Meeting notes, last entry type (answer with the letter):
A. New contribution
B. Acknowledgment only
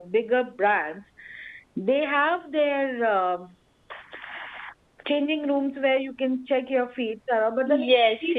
A